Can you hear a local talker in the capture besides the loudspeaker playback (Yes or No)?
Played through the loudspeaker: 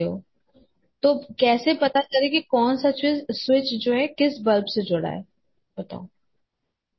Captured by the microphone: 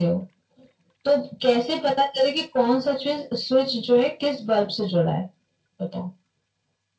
No